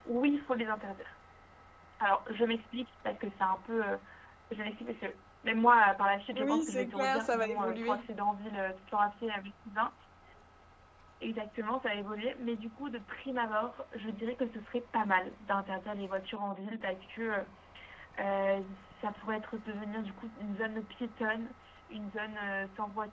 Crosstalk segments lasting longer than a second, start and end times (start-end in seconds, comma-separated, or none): 6.3-8.1